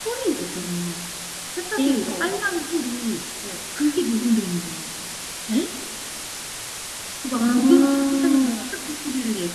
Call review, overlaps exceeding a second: present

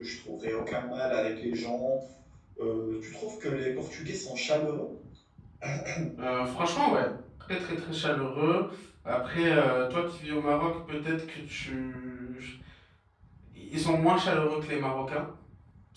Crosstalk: none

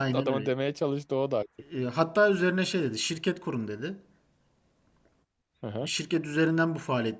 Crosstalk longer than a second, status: none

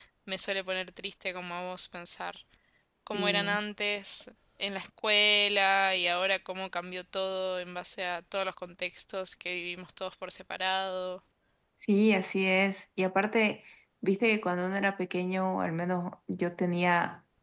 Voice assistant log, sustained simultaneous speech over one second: none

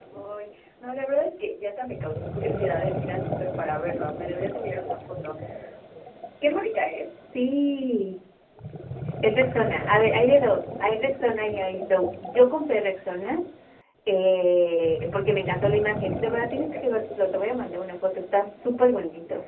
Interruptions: none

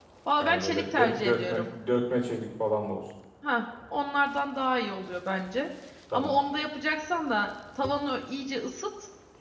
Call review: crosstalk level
present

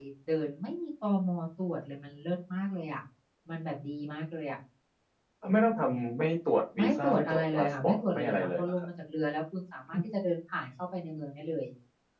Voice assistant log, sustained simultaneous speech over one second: present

